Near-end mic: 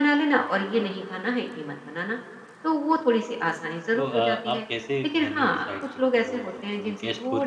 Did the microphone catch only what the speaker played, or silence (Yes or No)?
No